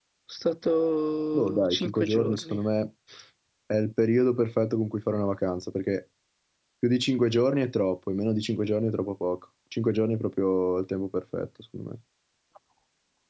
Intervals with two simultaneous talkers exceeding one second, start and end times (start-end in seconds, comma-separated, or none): 1.3-2.6